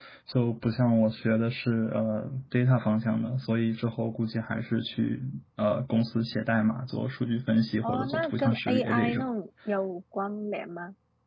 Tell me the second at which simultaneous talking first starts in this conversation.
7.8 s

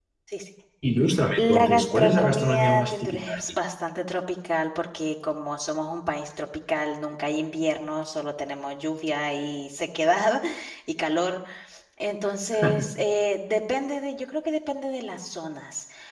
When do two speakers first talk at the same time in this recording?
1.4 s

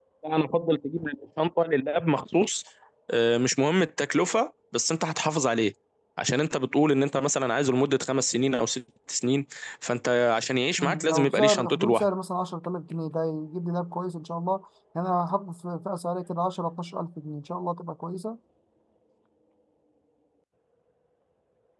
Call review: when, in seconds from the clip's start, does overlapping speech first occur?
10.8 s

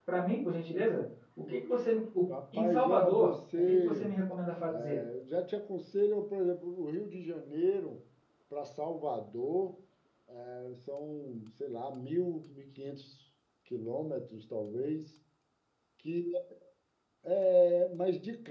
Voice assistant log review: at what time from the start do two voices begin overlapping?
2.5 s

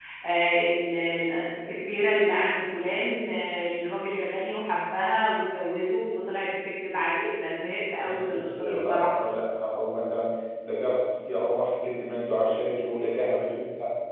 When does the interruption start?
8.0 s

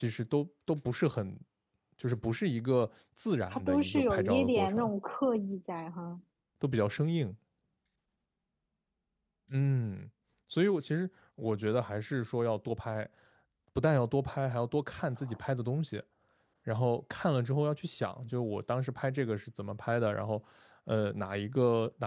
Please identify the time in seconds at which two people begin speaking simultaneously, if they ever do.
3.5 s

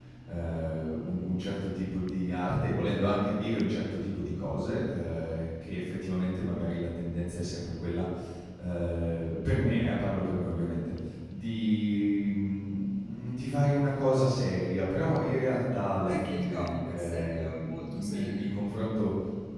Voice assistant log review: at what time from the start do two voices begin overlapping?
16.1 s

